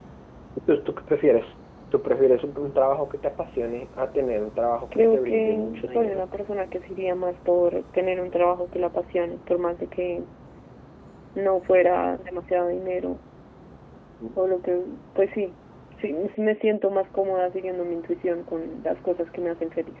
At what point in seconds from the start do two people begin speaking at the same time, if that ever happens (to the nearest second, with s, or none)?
5 s